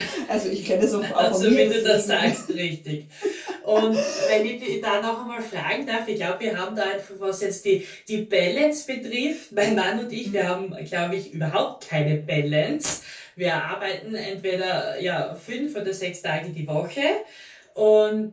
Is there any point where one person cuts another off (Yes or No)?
Yes